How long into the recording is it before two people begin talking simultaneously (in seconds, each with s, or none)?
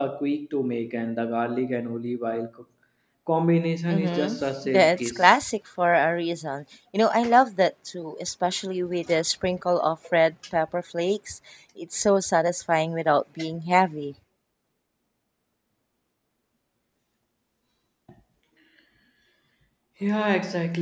3.9 s